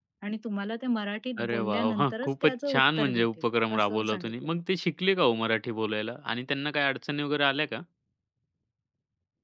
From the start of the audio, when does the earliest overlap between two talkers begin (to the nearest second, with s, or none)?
1 s